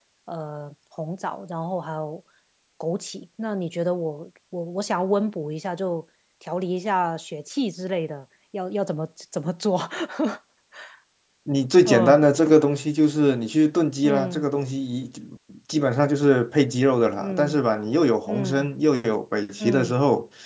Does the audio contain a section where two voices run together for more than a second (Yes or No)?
No